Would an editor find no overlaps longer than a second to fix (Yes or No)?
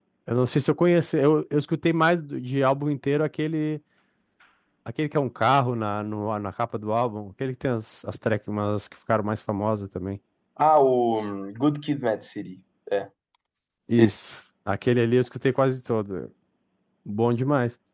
Yes